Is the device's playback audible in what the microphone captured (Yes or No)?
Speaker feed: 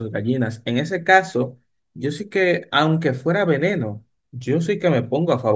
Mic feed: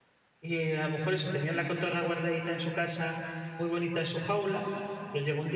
No